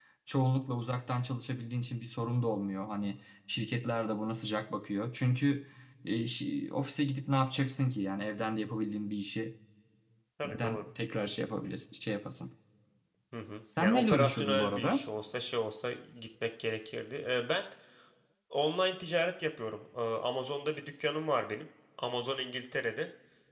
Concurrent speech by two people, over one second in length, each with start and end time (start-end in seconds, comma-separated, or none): 13.8-15.0